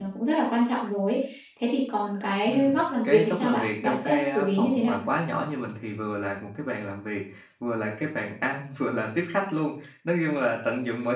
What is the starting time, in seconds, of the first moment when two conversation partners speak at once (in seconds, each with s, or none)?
2.5 s